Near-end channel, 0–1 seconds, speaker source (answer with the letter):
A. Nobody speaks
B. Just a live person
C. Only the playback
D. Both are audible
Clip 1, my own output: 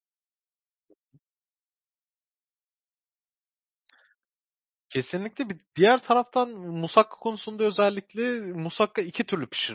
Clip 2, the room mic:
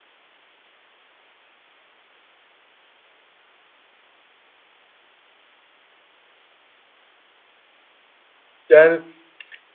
A